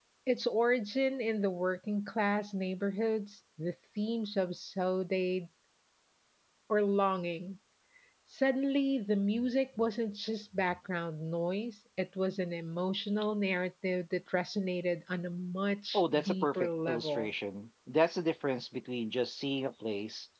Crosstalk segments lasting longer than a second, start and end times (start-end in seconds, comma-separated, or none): 15.9-17.3